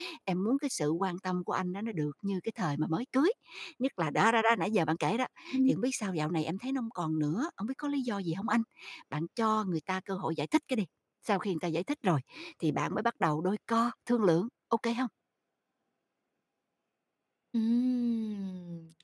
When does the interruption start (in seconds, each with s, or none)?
none